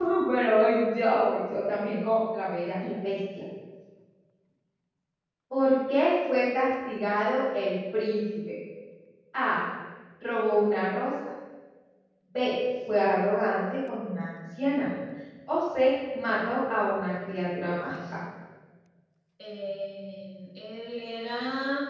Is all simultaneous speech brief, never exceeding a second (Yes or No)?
Yes